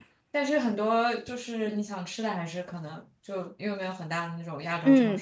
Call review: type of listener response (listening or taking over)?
taking over